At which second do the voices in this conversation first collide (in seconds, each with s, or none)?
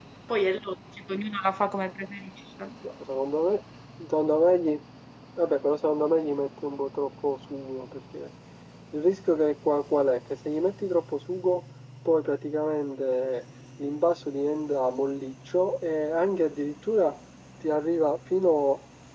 none